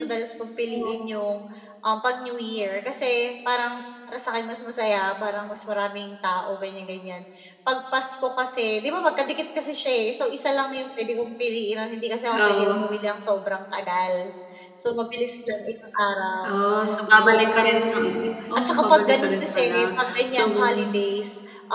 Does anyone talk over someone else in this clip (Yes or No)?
Yes